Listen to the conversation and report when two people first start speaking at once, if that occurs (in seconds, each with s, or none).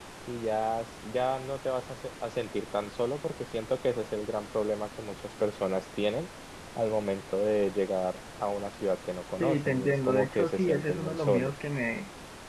9.3 s